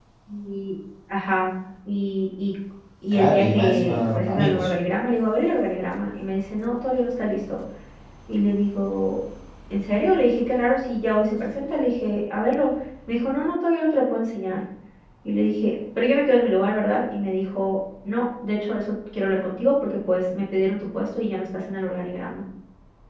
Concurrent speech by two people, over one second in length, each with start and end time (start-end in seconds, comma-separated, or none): 3.1-4.7